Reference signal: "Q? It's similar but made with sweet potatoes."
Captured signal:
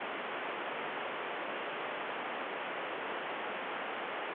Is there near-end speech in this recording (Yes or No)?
No